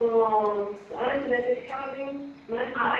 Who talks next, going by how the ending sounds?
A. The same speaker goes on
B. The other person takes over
B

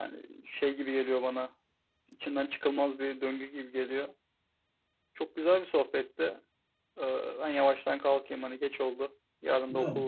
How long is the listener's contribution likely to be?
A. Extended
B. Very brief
A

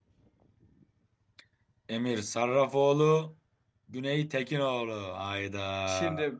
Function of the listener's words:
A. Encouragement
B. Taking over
B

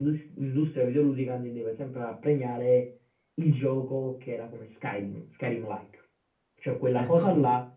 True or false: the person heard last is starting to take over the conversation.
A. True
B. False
B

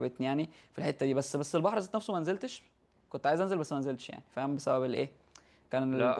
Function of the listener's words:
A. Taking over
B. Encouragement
A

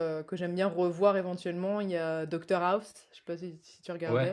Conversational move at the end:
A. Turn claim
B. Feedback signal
A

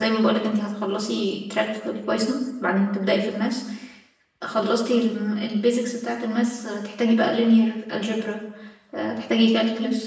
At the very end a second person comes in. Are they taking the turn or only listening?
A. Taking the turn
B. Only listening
B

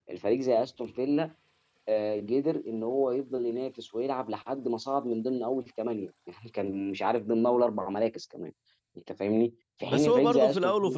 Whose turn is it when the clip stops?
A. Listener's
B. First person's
A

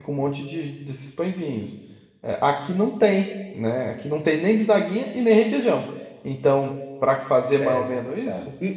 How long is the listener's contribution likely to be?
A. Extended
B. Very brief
A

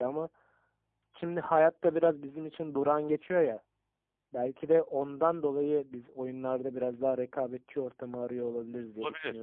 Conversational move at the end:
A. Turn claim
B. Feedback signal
A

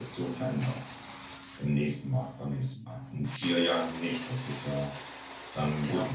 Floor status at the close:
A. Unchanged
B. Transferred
A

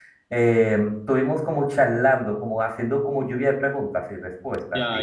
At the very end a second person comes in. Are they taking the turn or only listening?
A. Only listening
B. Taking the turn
B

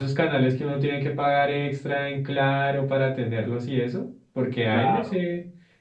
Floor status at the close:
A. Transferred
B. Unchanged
B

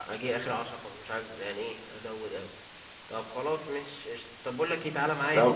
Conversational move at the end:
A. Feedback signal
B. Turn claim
A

